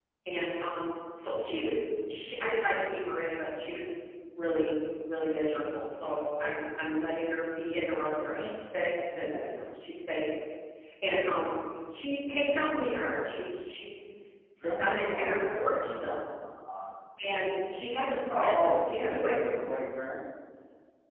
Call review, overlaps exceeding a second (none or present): present